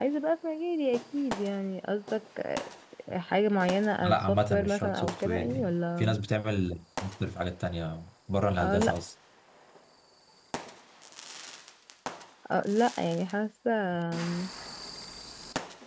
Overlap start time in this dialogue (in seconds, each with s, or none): 4.0 s